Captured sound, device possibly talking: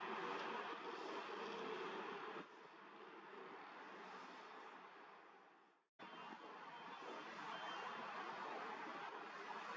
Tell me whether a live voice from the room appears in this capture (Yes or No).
No